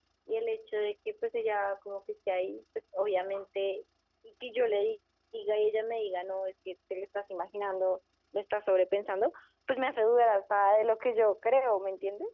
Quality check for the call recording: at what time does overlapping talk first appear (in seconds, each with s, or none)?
none